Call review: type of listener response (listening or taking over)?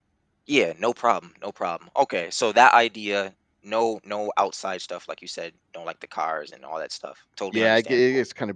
taking over